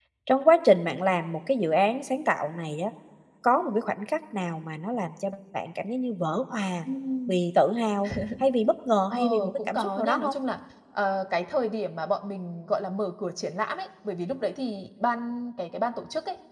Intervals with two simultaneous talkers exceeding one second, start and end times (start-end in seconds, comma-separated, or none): 9.1-10.3